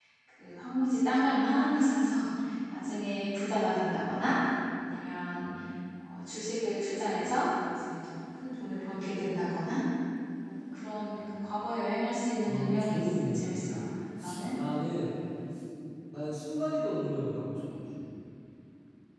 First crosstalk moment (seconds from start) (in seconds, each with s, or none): 12.5 s